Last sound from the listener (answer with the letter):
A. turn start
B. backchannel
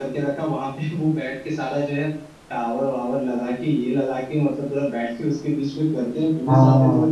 B